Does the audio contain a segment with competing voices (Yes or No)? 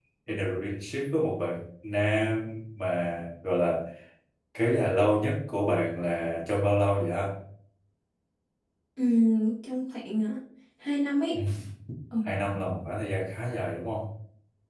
No